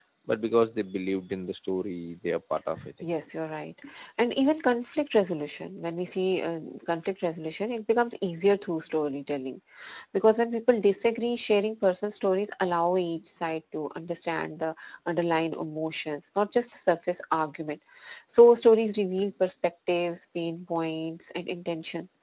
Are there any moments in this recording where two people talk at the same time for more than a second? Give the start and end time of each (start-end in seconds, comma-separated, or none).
none